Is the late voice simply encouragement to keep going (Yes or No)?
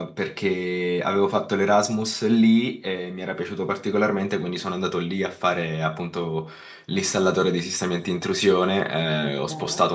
Yes